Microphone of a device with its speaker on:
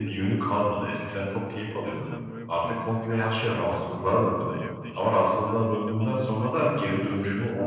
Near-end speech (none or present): present